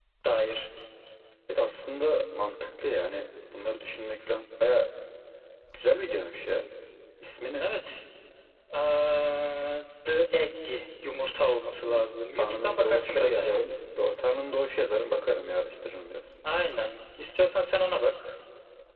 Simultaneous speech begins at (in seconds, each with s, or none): 11.8 s